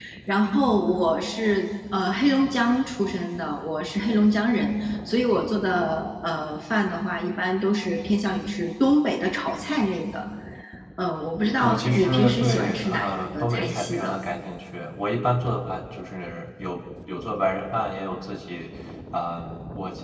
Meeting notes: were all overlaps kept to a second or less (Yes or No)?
No